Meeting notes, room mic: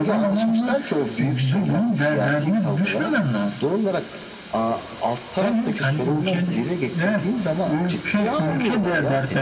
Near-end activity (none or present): none